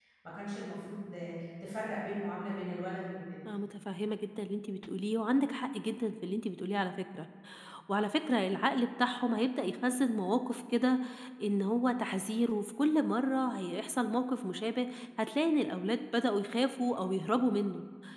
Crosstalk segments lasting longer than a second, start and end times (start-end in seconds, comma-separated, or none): none